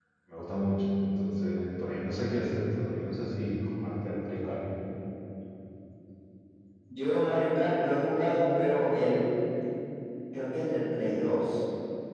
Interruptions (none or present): none